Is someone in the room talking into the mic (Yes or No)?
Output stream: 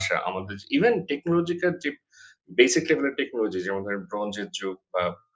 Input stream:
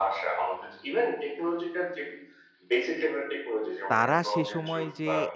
Yes